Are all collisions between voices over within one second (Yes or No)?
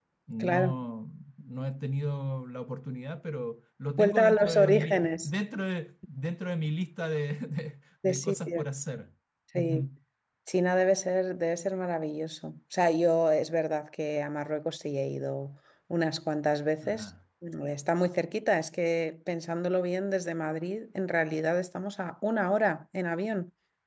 No